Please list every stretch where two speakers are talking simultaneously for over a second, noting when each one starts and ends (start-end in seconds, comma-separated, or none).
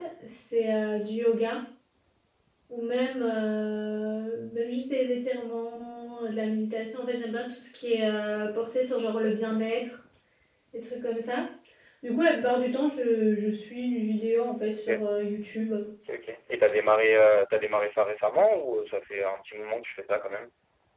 none